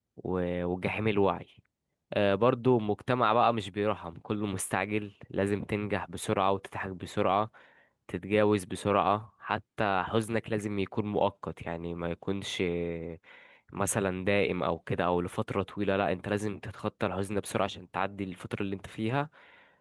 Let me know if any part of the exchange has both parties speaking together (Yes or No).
No